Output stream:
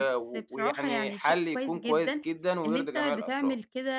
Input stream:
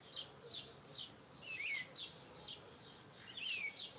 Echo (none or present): none